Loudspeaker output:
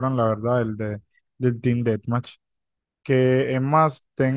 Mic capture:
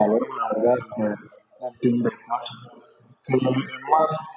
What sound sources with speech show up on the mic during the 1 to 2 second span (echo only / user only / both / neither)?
echo only